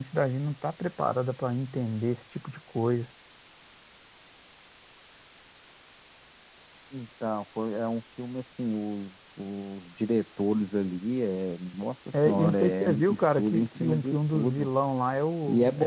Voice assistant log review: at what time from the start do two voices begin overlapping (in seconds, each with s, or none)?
12.1 s